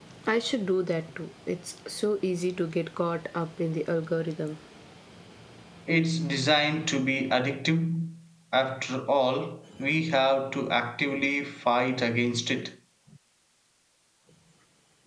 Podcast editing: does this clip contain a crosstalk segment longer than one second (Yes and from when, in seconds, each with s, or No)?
No